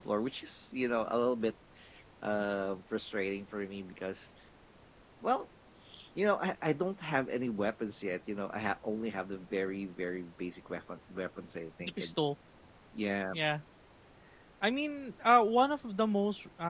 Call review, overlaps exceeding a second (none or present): none